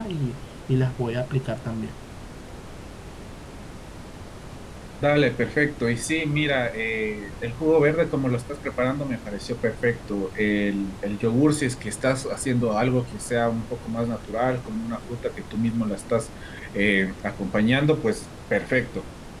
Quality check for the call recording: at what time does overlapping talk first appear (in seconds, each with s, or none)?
none